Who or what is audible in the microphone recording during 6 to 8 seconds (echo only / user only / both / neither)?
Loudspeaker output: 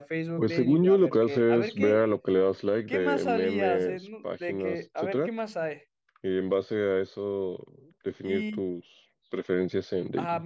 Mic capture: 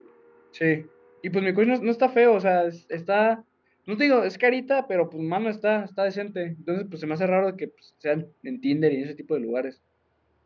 user only